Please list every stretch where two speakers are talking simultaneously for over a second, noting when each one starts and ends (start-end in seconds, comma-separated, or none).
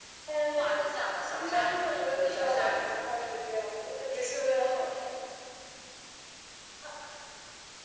1.3-3.0